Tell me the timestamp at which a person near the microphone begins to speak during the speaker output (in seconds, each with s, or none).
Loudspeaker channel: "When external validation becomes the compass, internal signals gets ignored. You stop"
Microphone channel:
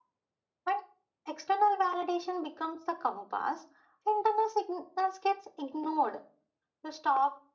none